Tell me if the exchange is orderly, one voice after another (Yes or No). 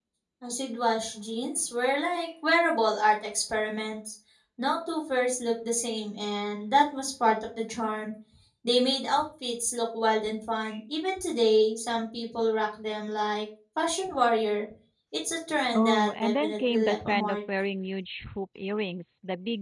No